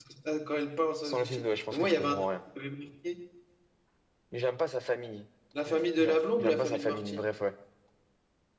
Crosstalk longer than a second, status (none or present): present